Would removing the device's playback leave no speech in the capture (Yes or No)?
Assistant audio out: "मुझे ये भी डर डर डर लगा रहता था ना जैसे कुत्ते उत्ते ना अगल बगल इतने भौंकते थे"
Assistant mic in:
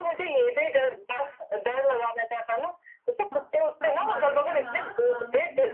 No